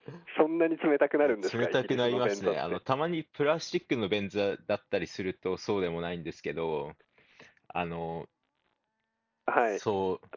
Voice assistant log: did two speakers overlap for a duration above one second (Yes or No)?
Yes